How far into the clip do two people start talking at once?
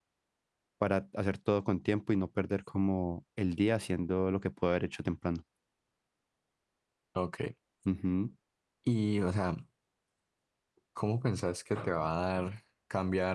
none

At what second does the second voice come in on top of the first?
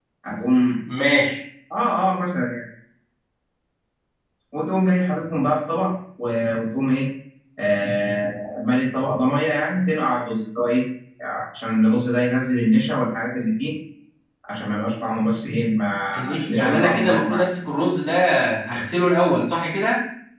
16.1 s

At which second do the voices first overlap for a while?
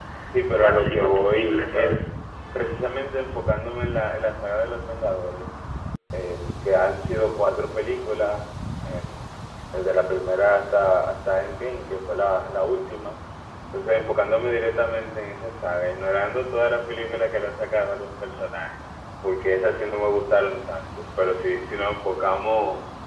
0.5 s

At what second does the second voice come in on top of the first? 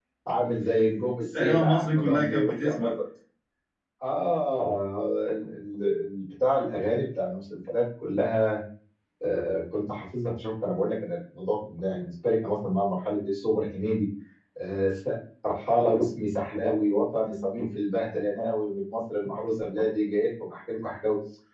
1.3 s

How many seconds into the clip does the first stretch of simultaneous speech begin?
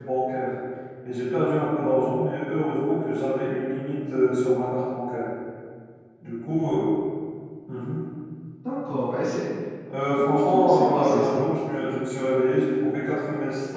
10.2 s

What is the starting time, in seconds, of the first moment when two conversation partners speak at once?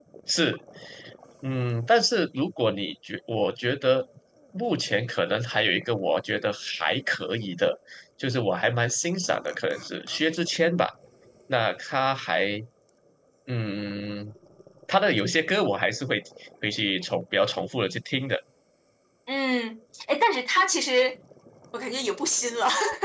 none

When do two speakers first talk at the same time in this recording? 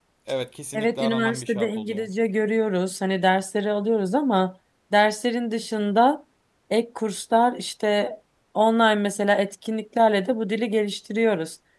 0.7 s

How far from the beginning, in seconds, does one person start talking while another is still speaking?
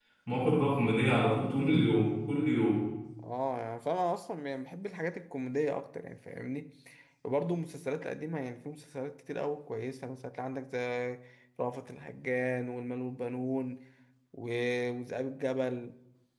none

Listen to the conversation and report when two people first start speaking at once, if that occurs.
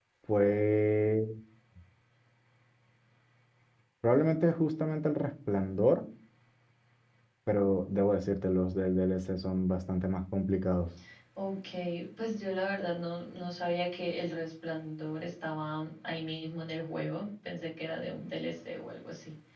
none

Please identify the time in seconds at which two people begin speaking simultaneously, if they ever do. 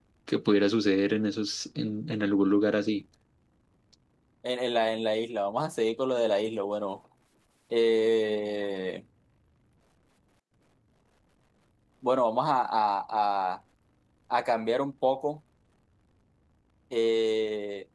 none

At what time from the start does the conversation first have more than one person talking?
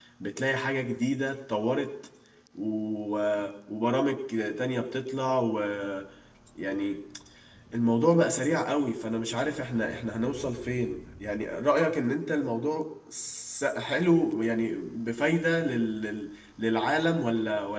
none

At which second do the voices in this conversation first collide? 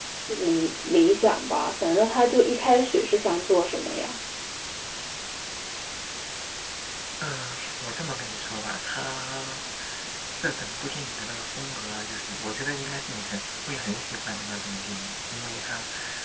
none

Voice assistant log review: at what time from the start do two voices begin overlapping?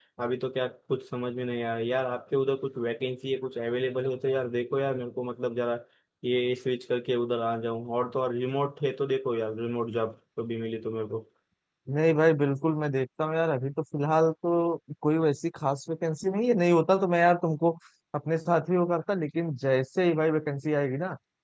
none

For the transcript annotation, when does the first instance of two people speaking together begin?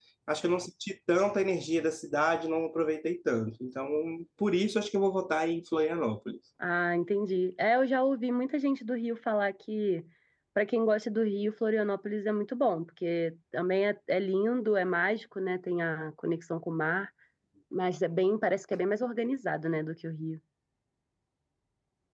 none

